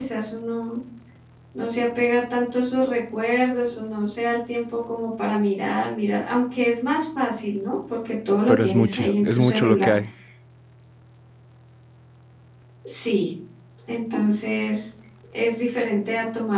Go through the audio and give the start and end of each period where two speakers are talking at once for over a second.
8.5-9.9

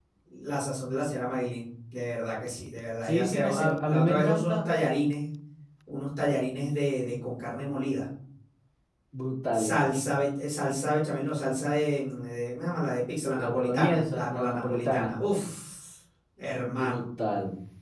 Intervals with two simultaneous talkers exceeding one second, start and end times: 3.0-4.7, 13.4-15.1

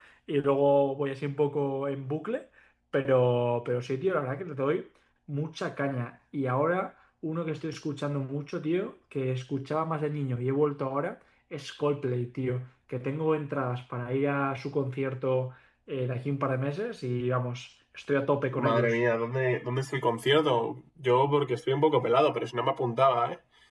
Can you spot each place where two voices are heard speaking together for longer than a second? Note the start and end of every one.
none

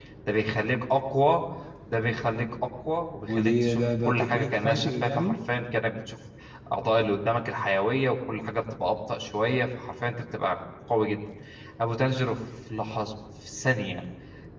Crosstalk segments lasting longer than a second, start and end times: 3.3-5.4

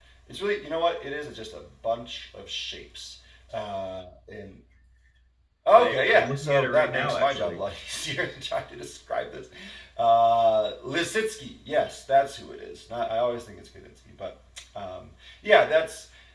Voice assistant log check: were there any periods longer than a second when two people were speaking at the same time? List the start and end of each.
5.8-7.6

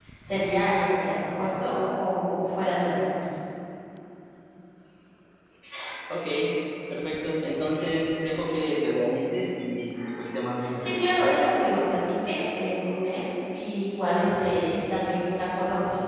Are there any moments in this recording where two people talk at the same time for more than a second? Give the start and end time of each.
10.8-12.0

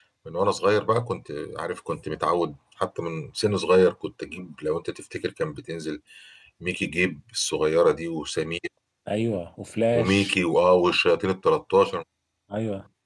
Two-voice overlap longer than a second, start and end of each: none

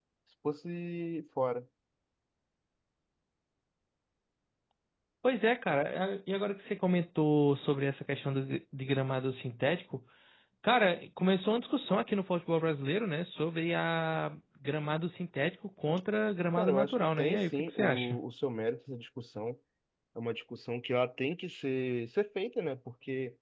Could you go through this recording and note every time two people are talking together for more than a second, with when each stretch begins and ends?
16.6-18.2

